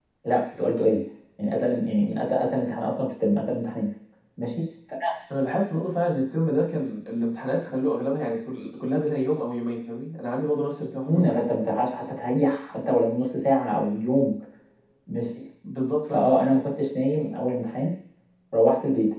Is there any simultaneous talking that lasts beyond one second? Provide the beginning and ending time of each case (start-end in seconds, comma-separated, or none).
none